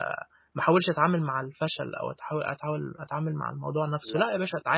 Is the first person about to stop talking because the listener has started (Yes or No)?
No